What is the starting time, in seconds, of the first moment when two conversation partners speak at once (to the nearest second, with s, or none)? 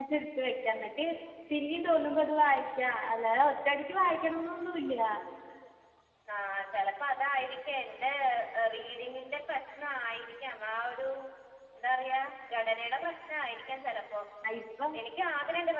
none